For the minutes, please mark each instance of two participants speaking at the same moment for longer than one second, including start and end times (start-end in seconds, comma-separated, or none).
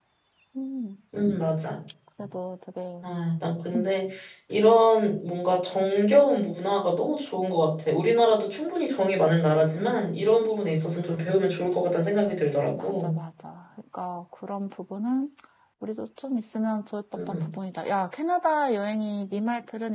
none